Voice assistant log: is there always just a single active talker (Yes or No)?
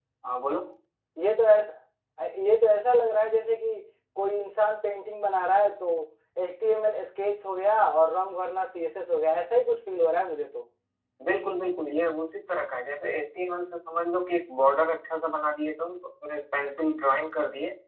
Yes